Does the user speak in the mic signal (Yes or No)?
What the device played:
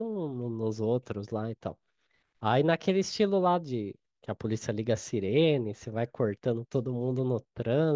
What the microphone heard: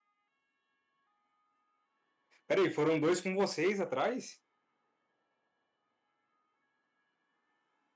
Yes